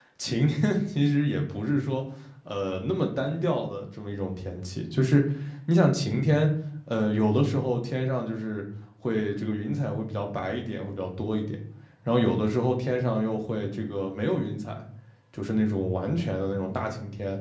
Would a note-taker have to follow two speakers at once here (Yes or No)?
No